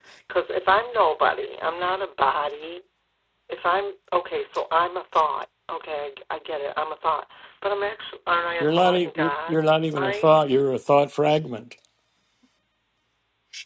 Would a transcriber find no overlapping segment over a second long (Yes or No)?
No